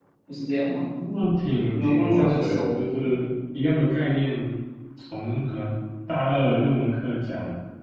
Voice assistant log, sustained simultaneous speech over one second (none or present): present